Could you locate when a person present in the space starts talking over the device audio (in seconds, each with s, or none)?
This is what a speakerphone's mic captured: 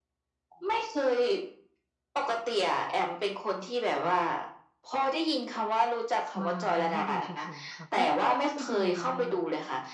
6.4 s